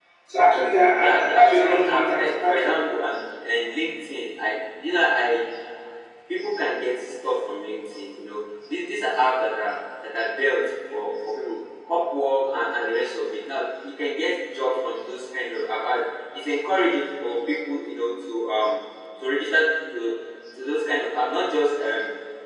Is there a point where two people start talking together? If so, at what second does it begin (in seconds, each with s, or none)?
1.0 s